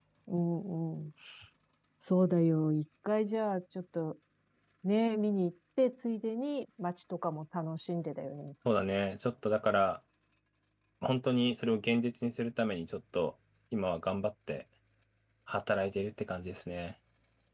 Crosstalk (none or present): none